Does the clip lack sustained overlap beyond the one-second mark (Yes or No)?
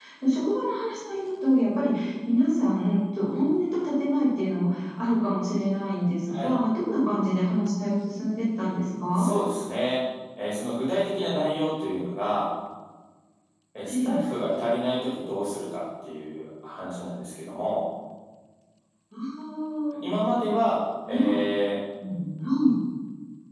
Yes